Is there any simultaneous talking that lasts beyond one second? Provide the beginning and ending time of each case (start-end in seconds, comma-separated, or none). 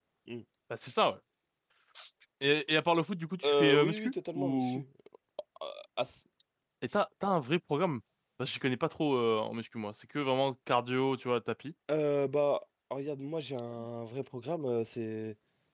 3.5-4.8